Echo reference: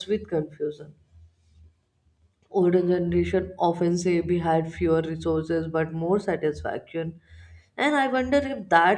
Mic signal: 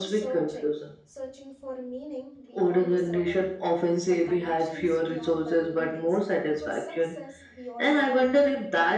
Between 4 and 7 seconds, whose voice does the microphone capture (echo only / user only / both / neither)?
both